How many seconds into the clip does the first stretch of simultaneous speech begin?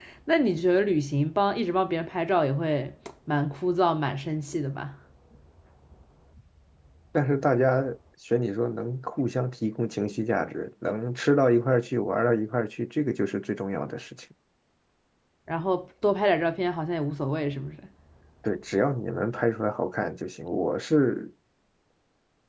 none

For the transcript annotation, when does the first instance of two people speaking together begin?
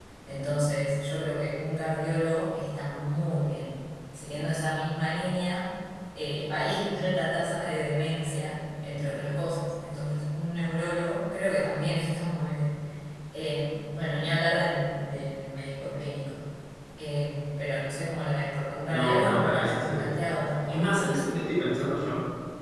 18.9 s

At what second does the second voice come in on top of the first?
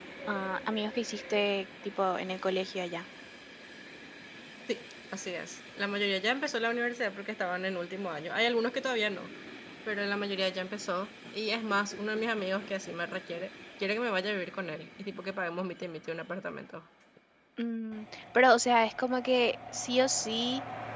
none

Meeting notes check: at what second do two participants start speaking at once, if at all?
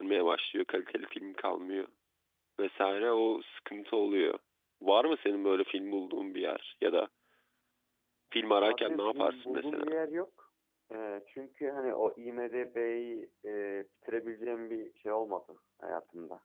8.6 s

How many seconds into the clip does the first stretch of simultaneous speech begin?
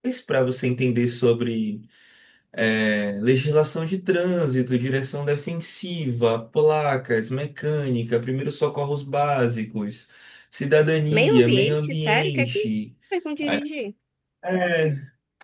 11.1 s

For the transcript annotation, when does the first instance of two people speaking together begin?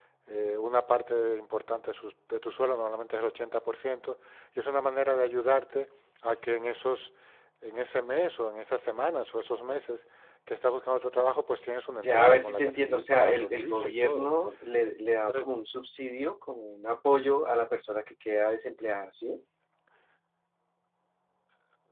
12.0 s

